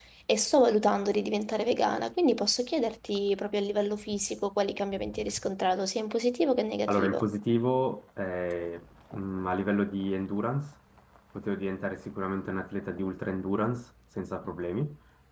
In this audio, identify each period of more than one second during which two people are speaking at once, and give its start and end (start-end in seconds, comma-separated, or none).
none